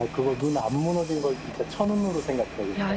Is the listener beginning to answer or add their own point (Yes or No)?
Yes